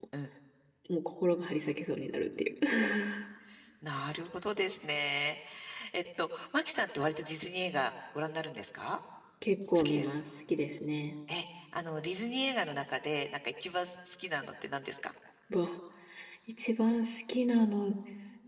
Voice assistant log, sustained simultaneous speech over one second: none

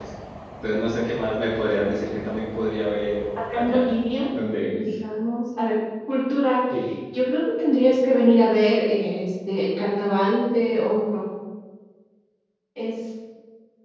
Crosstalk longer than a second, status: none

